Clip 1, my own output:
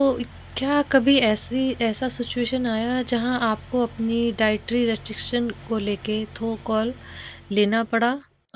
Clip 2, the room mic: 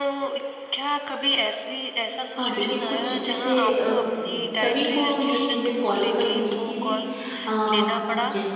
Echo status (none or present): present